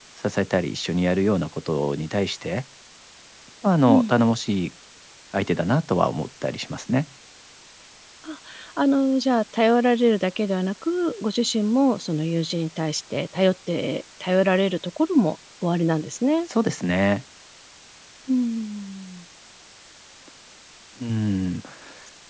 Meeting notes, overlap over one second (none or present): none